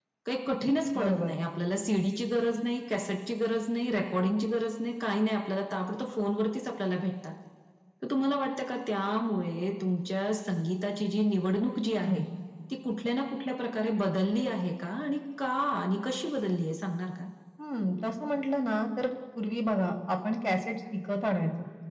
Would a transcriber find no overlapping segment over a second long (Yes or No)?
Yes